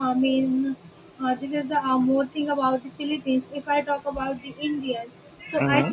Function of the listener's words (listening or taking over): listening